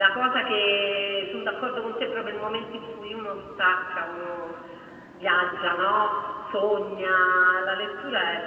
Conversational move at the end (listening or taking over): listening